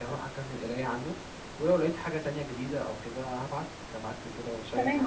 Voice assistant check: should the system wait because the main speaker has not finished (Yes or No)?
No